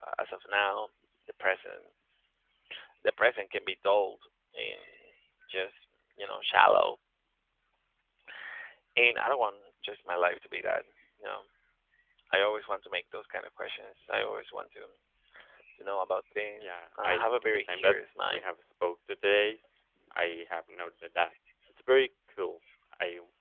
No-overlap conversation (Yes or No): No